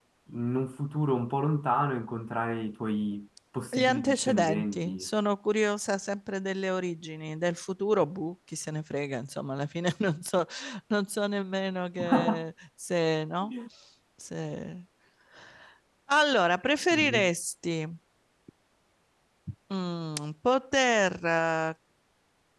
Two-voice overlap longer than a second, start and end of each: 3.7-5.0

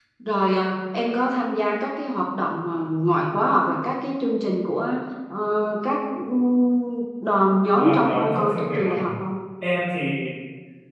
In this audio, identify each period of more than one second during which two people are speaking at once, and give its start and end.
7.7-9.1

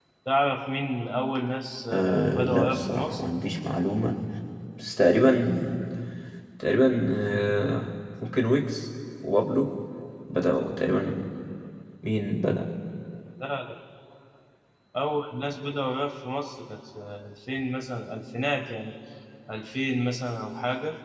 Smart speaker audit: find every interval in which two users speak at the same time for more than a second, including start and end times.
1.9-3.2

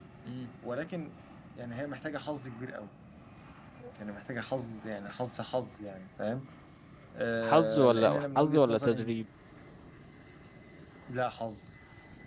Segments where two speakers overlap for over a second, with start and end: 7.4-9.1

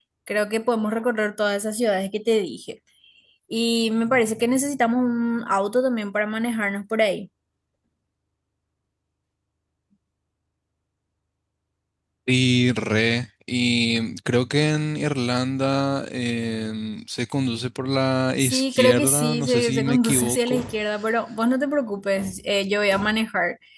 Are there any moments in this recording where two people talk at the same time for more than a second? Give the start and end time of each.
18.4-20.6

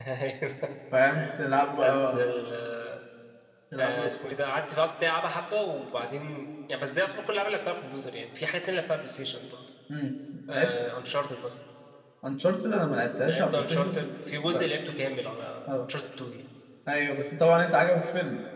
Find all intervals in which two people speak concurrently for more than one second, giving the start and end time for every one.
13.3-14.7

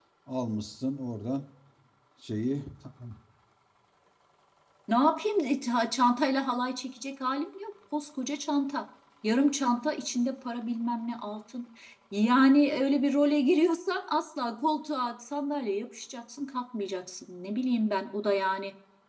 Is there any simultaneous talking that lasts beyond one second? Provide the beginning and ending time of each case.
none

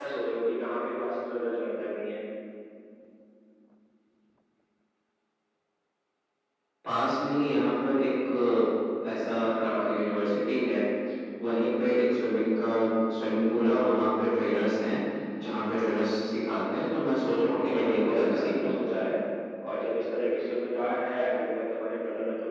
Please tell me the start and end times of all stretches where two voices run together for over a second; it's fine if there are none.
17.4-18.8

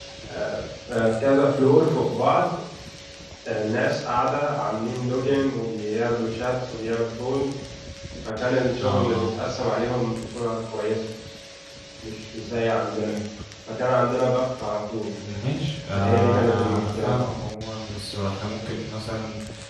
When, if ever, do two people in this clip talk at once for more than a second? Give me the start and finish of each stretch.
15.9-17.2

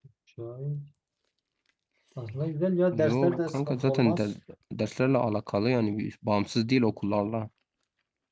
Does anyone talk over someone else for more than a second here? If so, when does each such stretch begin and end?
3.0-4.3

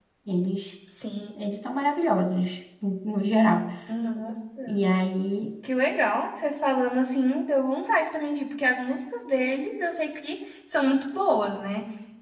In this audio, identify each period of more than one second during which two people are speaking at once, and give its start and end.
none

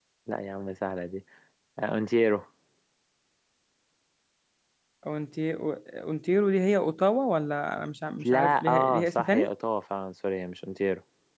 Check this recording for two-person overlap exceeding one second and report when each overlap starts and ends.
8.2-9.5

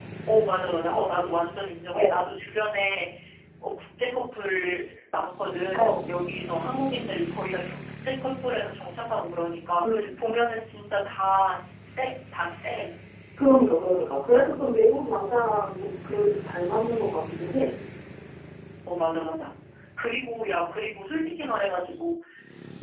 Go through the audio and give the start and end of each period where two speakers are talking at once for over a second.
none

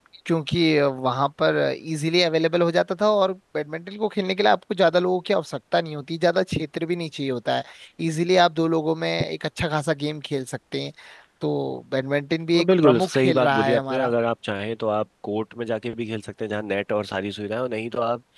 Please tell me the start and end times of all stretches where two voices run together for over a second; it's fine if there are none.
12.6-14.1

